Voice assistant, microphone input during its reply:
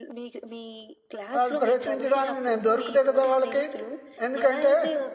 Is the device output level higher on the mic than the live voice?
No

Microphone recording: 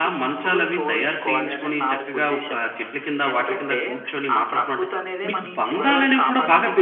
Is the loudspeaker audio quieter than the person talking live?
Yes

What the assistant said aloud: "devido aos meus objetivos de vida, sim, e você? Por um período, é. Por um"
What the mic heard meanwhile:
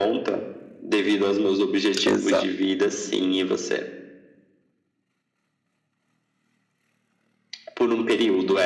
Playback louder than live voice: No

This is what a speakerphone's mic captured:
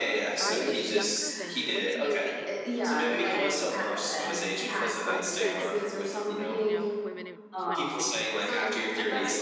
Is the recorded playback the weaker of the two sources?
No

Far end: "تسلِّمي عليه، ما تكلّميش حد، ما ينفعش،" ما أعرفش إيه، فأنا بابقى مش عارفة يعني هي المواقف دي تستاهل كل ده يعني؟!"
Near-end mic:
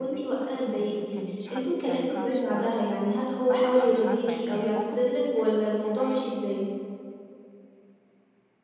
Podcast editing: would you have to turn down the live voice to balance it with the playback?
Yes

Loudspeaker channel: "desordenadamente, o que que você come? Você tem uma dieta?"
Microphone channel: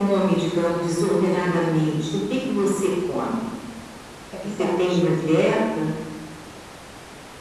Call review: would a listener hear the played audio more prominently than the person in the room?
Yes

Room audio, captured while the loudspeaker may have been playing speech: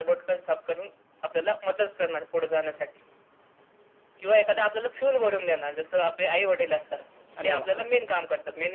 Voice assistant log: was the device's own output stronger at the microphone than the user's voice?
Yes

